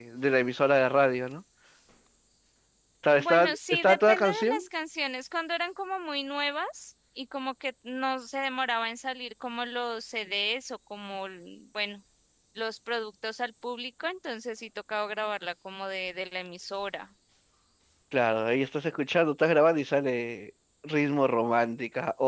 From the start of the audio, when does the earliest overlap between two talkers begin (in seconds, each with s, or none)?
3.1 s